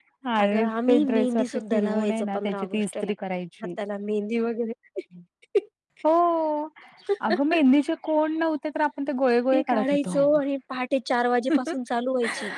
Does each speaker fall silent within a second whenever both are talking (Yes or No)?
No